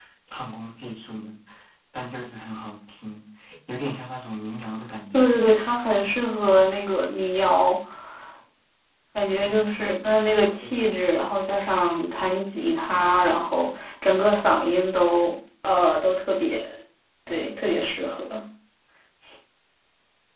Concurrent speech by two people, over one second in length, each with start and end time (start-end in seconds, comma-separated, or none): none